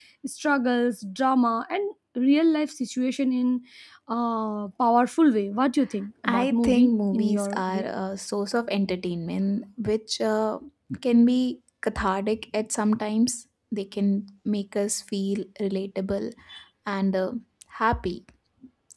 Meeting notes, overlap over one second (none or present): present